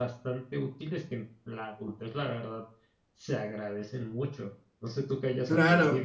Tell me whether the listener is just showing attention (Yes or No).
No